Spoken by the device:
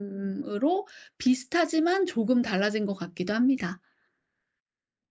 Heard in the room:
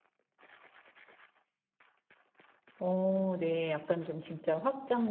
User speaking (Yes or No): Yes